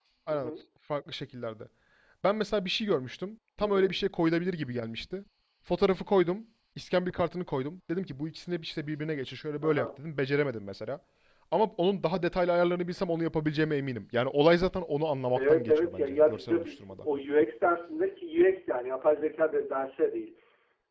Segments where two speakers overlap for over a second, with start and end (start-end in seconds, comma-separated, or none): 15.3-17.1